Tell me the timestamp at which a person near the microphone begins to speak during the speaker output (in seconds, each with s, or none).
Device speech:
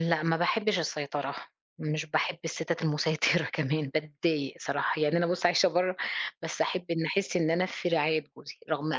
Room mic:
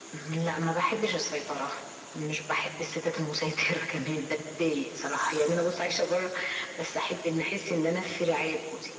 none